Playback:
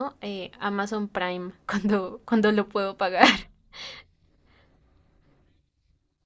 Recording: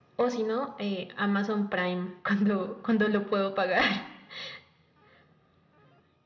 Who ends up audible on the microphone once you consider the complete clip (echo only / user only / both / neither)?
echo only